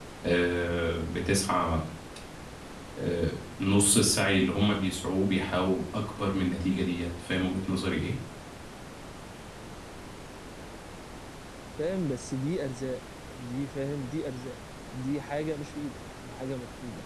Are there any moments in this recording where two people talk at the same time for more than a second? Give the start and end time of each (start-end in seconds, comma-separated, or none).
none